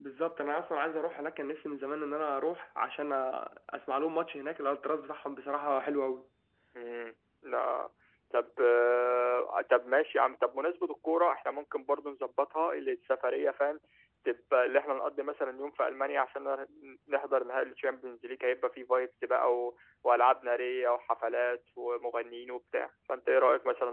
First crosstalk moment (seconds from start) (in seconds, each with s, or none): none